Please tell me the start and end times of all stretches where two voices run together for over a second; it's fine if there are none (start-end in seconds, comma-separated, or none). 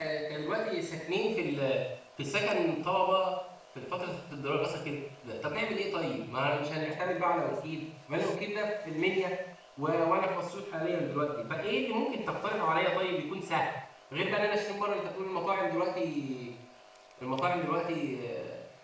none